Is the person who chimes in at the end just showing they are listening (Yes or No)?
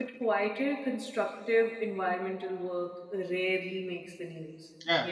Yes